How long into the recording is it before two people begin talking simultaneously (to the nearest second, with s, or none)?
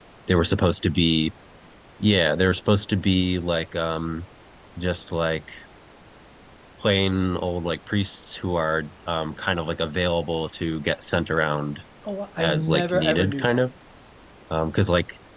12 s